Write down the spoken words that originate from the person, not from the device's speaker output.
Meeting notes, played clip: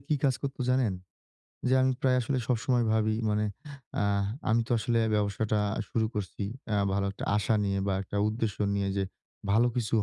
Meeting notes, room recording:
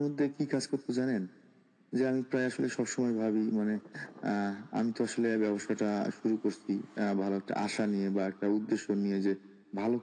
none

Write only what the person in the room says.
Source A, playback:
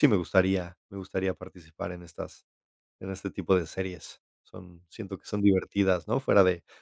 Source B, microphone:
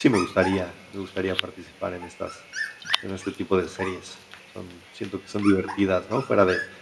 none

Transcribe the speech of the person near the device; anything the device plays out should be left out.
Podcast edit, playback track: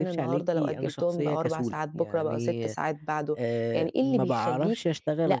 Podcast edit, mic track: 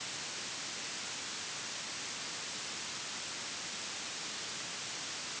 none

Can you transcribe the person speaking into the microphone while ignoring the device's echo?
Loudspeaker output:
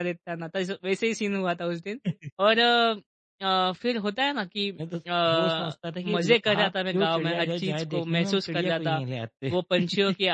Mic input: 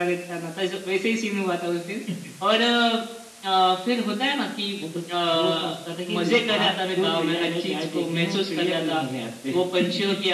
none

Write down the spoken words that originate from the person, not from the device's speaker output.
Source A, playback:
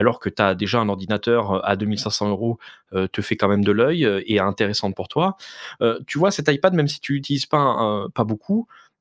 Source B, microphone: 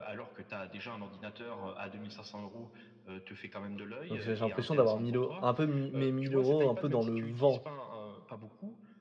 Donc j'ai j'ai l'impression d'avoir mille euros, un peu mis mes 1 000 un peu dans le vent.

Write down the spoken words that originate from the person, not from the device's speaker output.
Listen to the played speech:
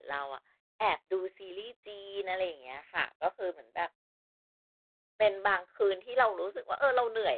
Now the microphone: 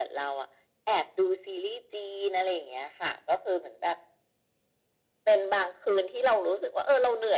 none

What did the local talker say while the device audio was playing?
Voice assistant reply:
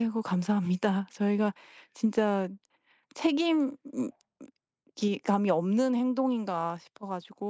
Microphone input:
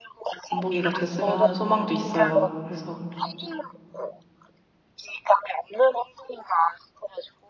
본보기가 됐으면 하는 소망도 있어요. 그래서,

